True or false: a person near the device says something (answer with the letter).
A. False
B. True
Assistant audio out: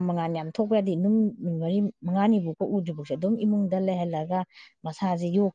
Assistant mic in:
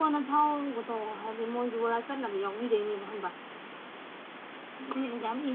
B